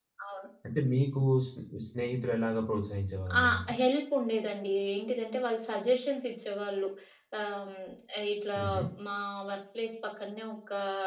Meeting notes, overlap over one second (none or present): none